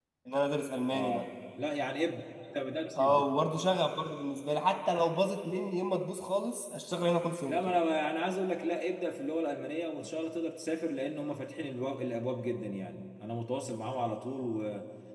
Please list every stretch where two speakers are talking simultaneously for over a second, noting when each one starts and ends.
none

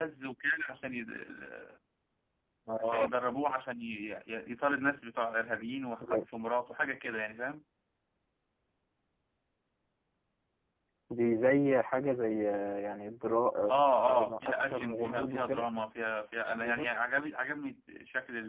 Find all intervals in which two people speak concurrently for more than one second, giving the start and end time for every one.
13.7-15.7

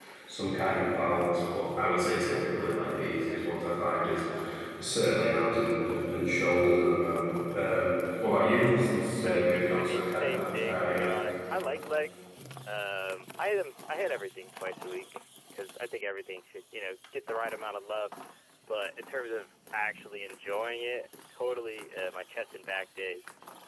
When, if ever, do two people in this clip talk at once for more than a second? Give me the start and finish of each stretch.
9.2-11.1

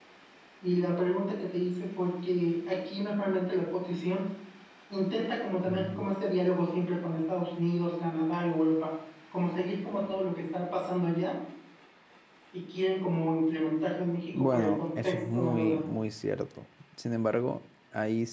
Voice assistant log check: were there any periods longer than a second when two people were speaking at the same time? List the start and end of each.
14.3-15.8

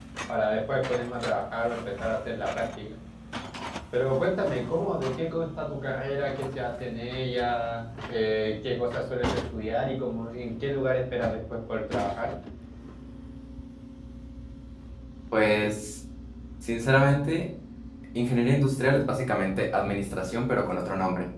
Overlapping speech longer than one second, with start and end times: none

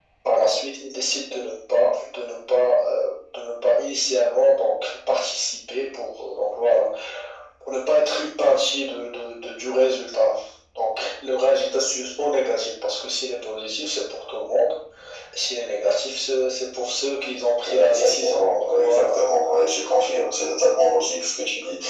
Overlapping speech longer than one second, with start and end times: 17.6-19.2

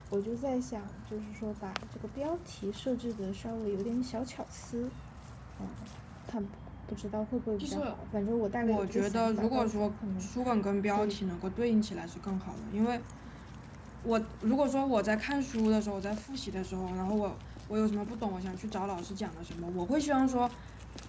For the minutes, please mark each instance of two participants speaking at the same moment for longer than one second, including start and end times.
8.6-10.3

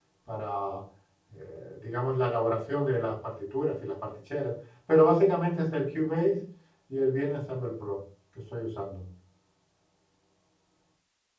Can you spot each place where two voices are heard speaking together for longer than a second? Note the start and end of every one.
none

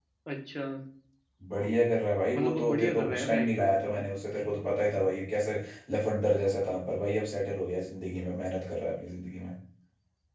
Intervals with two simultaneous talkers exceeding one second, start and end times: 2.4-4.0

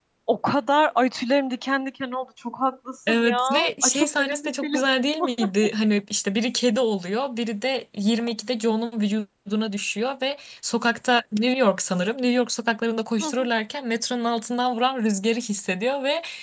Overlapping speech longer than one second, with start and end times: 3.1-4.8

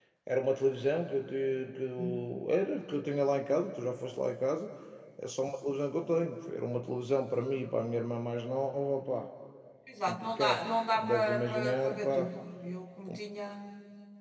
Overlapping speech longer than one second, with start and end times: 10.1-12.3

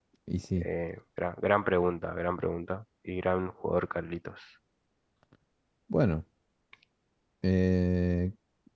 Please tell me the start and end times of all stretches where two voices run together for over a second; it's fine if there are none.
none

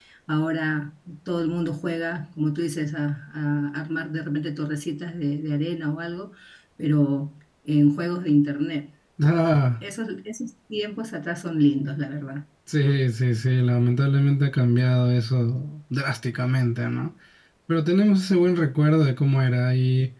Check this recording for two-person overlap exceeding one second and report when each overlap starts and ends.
none

